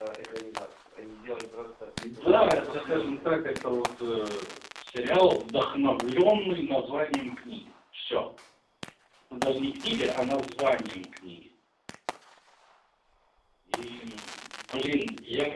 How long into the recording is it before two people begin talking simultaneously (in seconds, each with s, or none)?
2.0 s